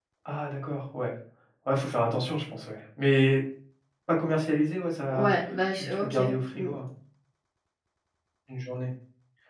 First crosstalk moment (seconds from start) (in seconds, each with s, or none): 5.1 s